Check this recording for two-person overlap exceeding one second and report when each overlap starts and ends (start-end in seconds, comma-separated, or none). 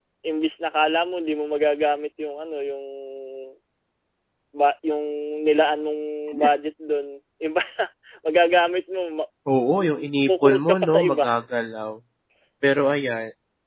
9.8-11.3